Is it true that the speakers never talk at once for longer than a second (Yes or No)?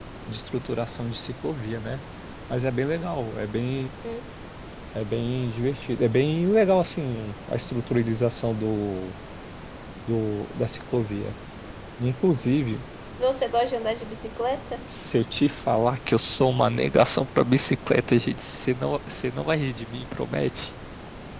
Yes